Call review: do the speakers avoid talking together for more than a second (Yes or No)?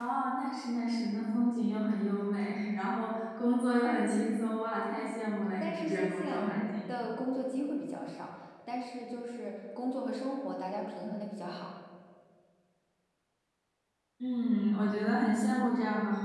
No